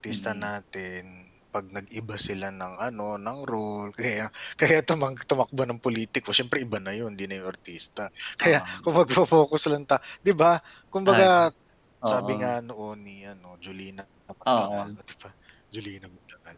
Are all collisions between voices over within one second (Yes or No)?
Yes